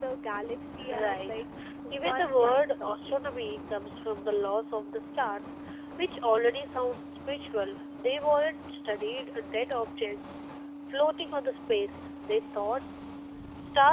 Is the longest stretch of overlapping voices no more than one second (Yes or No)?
No